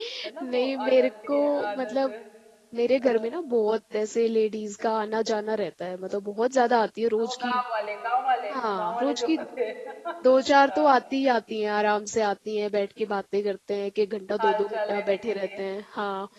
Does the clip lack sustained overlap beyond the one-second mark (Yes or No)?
No